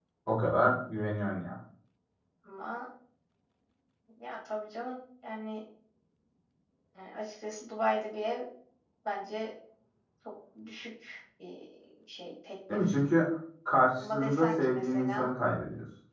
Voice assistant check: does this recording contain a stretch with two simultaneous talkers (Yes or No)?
Yes